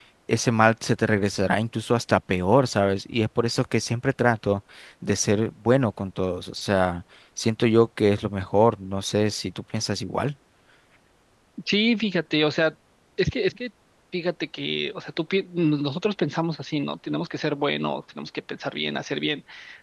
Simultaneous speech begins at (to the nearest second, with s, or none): none